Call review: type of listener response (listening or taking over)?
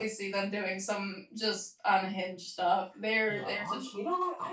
taking over